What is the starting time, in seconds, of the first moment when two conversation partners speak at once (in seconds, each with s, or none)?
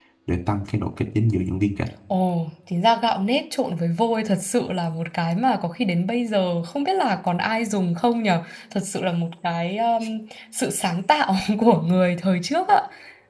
none